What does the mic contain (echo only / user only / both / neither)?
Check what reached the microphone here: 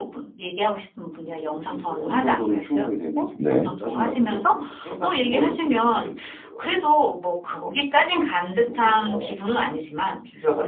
both